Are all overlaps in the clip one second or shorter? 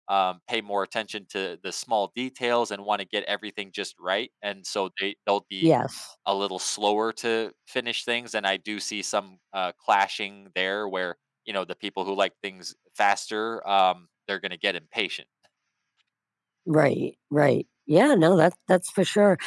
Yes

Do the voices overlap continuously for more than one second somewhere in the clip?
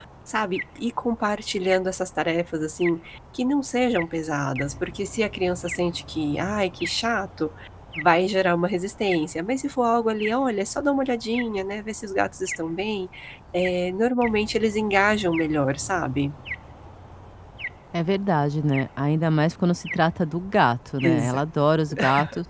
No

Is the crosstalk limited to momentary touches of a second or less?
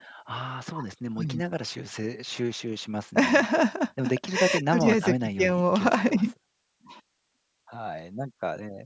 No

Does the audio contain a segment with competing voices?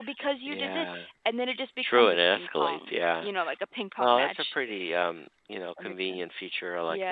Yes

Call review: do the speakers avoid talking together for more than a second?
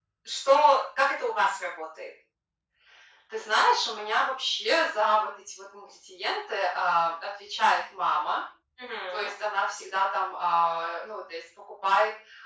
Yes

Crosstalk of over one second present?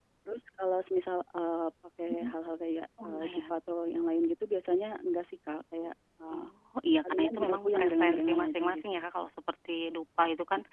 Yes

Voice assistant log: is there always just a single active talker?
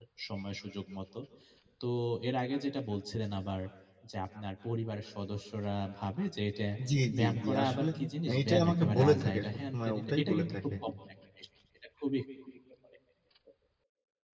No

